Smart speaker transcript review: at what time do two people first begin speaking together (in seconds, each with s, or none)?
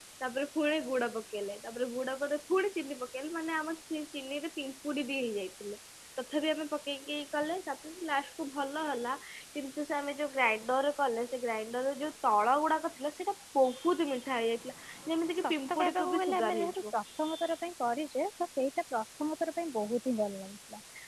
15.4 s